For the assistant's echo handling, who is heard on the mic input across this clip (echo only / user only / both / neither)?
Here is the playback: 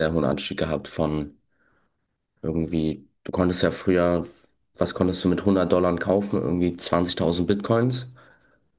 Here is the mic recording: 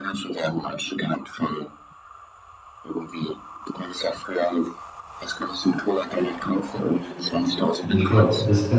both